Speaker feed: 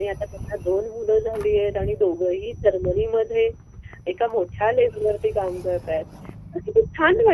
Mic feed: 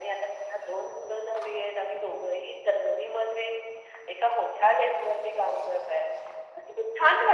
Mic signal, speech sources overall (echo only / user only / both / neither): echo only